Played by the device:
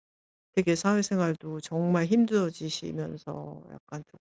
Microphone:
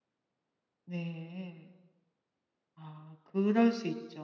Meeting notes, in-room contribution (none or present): present